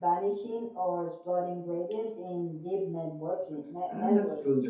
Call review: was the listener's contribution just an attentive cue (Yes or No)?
No